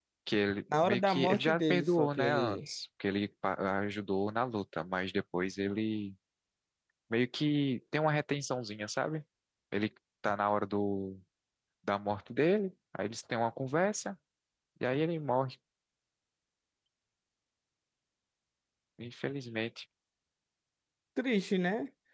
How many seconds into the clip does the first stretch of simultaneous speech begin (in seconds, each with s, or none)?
0.7 s